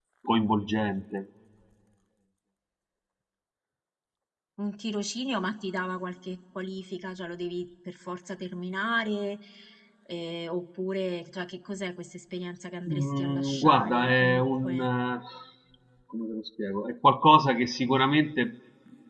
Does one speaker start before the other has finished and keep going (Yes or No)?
Yes